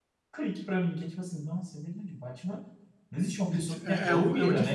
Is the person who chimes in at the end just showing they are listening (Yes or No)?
No